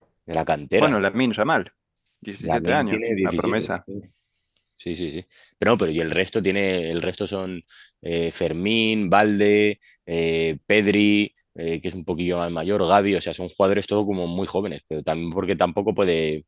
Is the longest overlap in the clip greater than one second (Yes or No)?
Yes